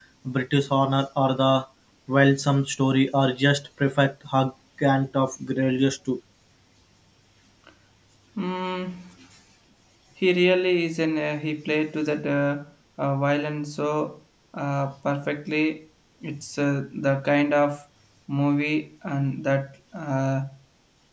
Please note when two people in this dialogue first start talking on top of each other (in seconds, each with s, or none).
none